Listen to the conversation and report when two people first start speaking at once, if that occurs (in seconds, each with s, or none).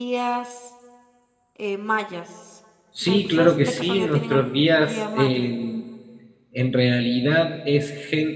3.0 s